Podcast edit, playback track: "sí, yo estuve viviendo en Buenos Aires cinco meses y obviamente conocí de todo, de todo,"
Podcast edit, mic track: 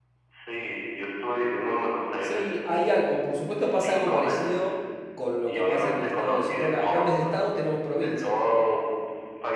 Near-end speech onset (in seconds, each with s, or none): 2.2 s